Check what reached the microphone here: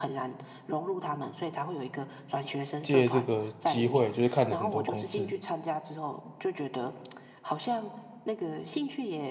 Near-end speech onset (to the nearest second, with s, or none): 3 s